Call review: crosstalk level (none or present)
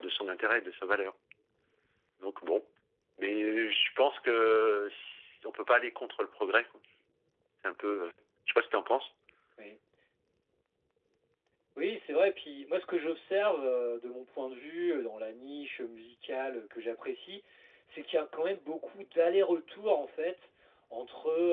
none